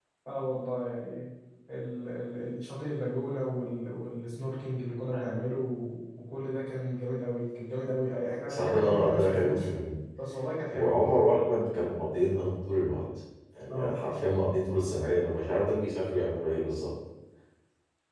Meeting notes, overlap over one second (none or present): present